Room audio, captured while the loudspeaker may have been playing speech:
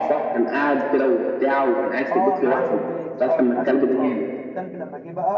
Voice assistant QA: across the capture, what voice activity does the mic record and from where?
both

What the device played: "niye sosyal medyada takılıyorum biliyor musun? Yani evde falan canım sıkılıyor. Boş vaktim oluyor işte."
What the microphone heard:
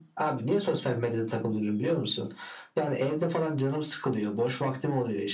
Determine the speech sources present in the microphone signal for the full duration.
echo only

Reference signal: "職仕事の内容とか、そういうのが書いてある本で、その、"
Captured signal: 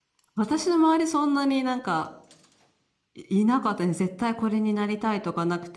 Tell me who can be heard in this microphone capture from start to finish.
user only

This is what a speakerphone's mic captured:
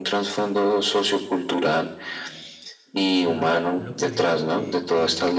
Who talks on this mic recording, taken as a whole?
both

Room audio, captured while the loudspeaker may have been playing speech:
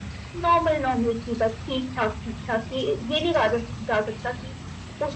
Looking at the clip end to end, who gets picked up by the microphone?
echo only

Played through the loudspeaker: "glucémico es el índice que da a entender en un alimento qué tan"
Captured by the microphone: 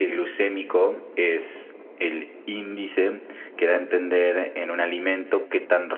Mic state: echo only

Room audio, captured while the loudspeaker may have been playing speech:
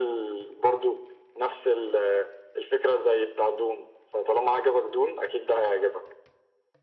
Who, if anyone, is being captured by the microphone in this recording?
echo only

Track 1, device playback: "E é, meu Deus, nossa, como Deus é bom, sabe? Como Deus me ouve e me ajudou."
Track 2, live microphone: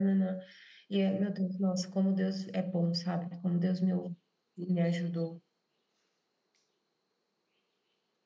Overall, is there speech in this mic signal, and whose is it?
echo only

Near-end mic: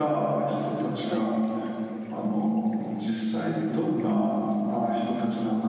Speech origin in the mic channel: both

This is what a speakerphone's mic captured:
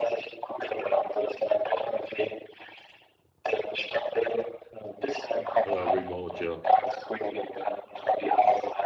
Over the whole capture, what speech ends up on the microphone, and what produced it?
both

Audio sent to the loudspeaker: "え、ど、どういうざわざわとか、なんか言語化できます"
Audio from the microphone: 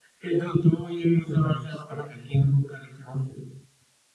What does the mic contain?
both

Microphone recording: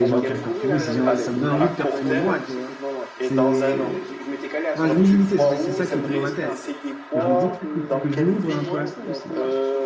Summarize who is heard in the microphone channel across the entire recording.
both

